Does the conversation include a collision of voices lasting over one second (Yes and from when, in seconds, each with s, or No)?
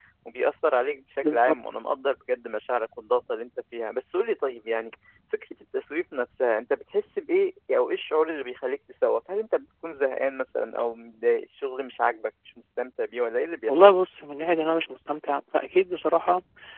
No